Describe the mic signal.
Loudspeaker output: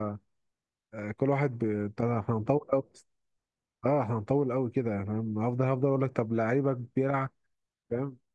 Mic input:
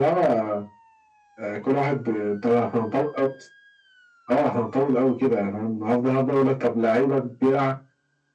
echo only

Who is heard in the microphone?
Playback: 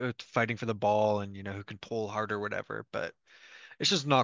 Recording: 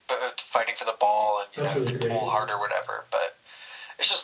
both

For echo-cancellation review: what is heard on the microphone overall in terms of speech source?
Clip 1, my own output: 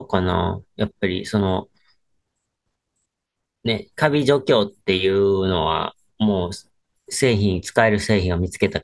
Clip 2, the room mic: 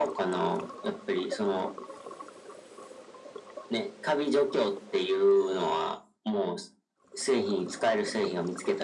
echo only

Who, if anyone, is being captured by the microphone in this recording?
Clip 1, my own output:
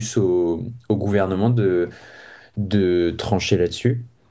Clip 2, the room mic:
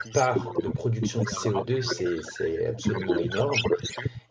both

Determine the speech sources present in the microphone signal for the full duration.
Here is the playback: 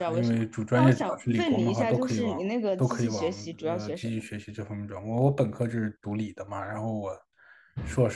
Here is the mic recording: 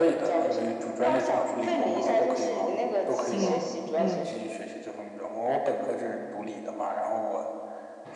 both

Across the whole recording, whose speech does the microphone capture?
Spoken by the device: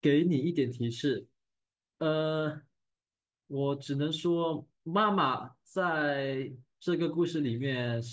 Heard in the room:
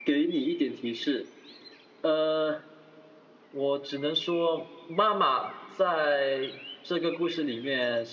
echo only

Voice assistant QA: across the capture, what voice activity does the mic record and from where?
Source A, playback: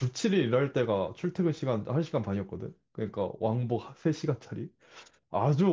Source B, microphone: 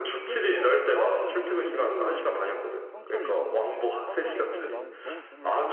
both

